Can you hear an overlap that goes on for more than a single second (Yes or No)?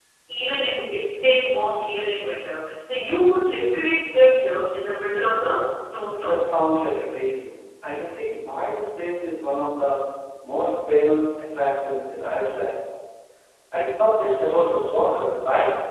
No